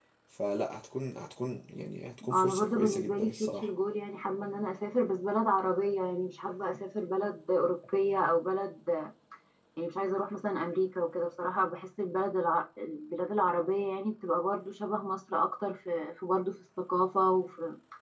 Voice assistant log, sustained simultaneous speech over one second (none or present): present